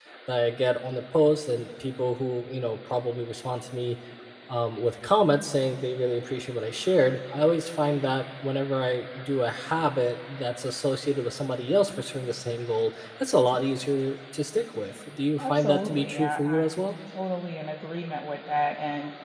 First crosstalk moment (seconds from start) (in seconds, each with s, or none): 15.4 s